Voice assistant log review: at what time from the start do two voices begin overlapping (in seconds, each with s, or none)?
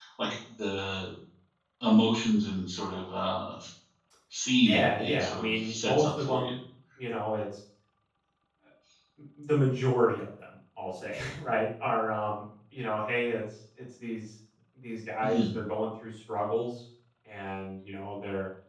4.6 s